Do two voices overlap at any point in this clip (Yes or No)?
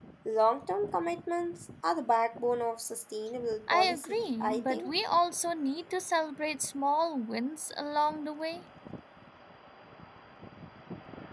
Yes